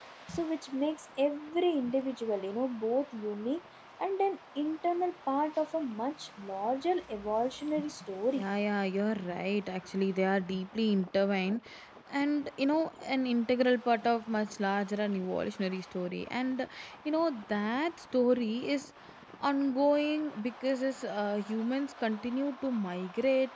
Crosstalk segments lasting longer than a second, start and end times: none

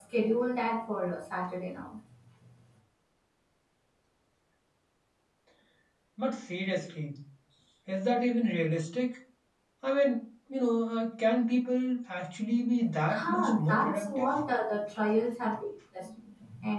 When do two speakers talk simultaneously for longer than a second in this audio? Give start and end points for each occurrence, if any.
13.1-14.3

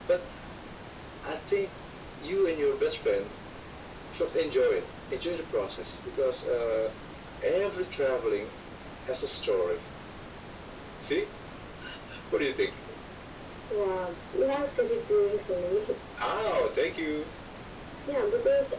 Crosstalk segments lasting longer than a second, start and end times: none

